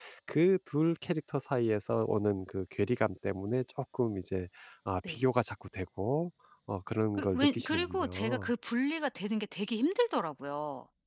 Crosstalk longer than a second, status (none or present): present